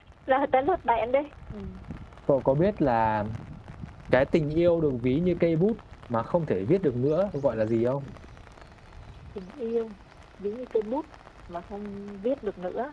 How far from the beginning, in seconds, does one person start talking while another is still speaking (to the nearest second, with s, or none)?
none